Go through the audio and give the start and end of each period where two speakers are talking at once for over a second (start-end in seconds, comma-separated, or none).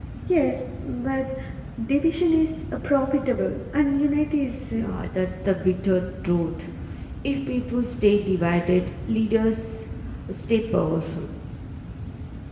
none